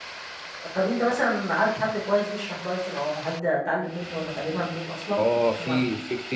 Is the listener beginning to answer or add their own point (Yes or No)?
Yes